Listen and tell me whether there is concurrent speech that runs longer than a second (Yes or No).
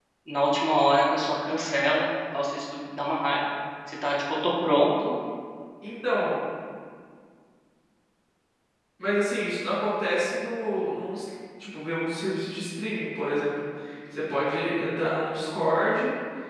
No